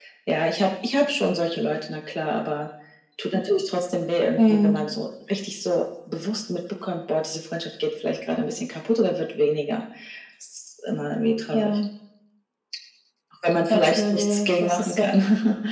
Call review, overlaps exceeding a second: present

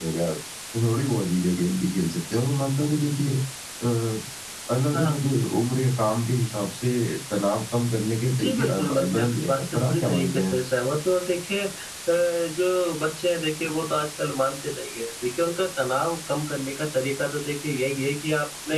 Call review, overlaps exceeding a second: present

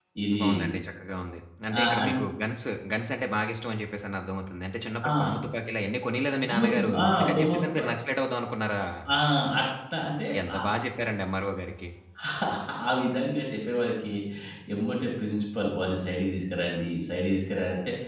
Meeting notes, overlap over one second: present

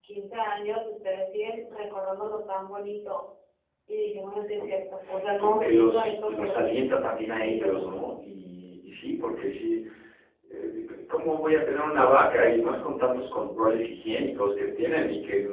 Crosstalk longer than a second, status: present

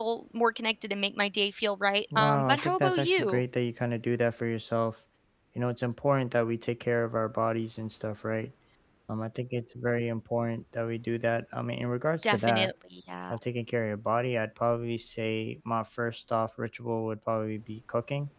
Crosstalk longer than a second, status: present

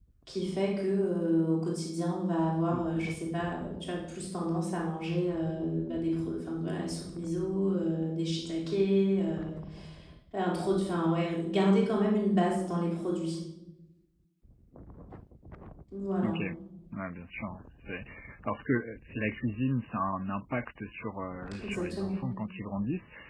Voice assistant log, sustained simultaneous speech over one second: none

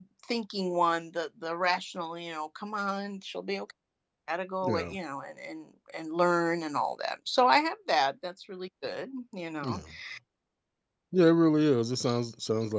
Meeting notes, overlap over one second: none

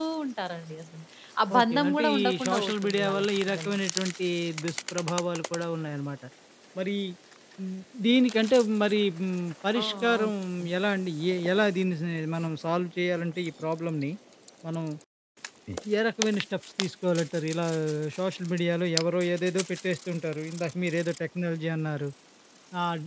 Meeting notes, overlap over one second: present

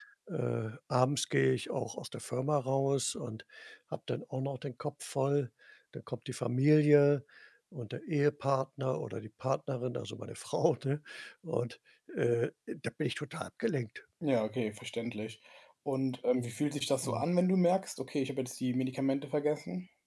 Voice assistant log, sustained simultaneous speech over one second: none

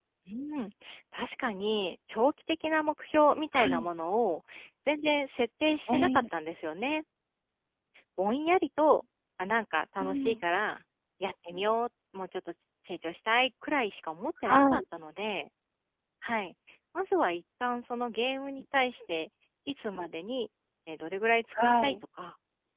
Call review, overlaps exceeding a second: none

